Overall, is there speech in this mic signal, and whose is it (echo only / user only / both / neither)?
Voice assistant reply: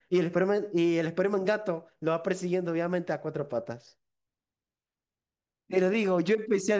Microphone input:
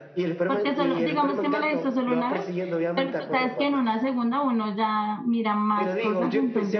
both